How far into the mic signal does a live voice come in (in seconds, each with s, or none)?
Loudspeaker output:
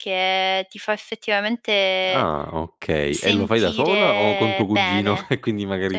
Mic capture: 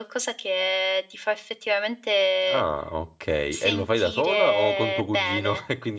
none